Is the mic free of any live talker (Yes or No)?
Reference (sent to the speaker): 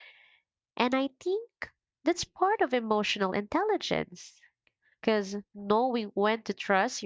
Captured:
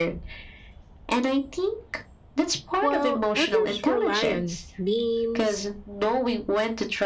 No